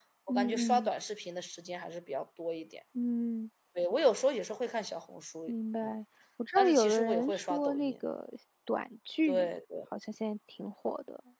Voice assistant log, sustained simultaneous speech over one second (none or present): present